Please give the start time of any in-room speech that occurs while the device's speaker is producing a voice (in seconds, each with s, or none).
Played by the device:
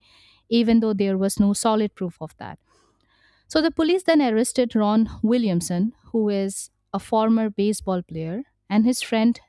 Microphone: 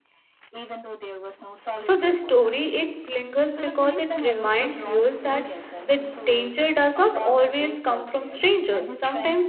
1.9 s